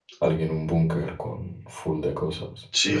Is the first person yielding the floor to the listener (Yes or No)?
Yes